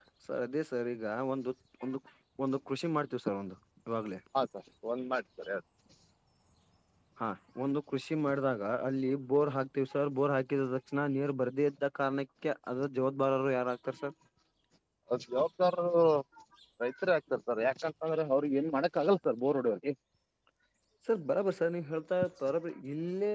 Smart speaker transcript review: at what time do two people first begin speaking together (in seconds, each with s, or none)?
none